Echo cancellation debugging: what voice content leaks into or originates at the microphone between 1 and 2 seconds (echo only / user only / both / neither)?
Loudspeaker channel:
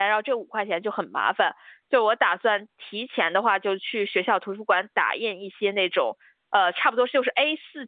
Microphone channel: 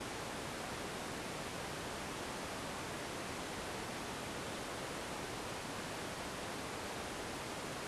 neither